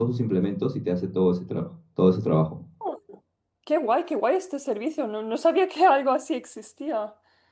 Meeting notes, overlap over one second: none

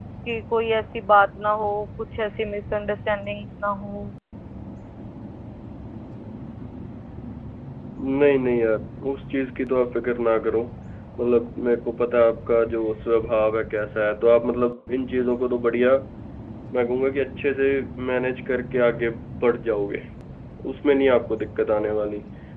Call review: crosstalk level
none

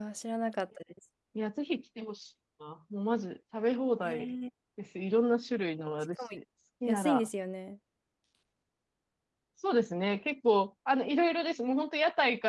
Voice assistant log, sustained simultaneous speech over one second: none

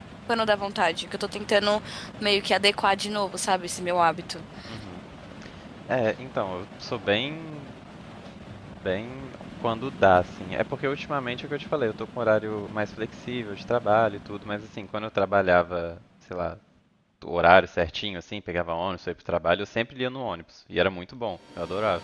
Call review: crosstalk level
none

